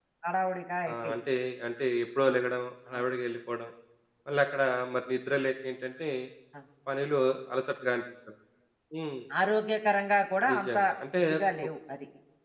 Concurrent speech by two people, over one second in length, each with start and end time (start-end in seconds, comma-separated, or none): none